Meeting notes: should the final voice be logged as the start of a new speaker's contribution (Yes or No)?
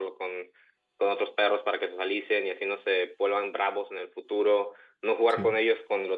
No